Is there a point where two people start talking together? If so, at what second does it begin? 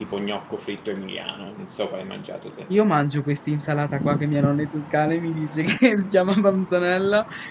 none

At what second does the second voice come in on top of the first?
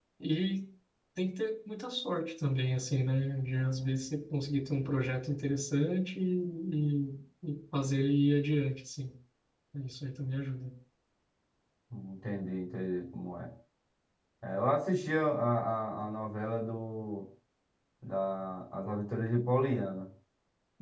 none

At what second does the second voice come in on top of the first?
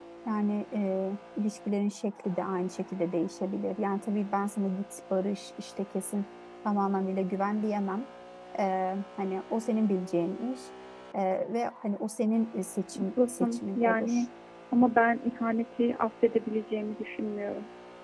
13 s

